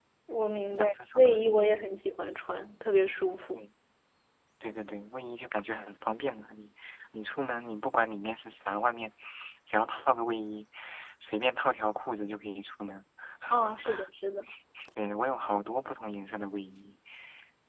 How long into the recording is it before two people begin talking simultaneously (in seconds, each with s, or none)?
0.7 s